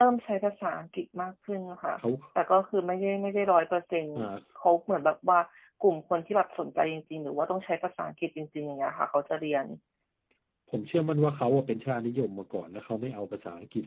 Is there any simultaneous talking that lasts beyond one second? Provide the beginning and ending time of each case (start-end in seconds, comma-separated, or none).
none